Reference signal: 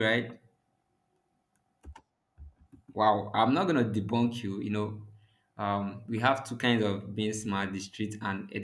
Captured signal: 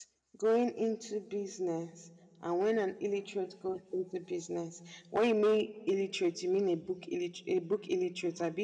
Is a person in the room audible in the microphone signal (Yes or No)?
Yes